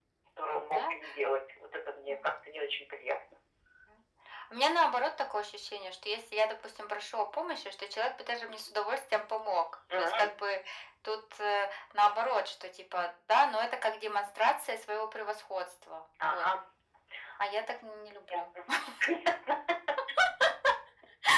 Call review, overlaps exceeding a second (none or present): none